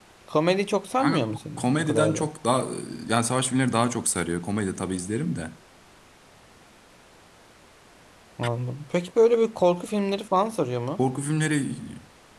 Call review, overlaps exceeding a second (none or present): present